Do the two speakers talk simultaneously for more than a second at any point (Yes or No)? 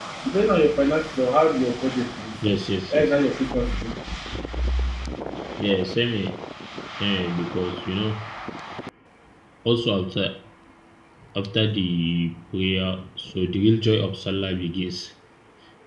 No